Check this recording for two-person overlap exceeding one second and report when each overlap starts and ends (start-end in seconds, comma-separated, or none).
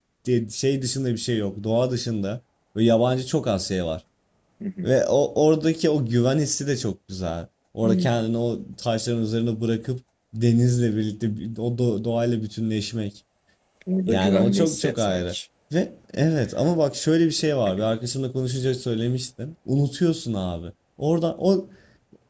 14.1-15.4